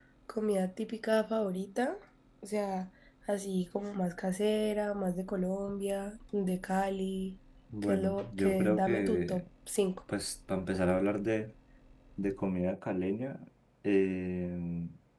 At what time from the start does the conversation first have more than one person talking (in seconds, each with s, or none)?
7.8 s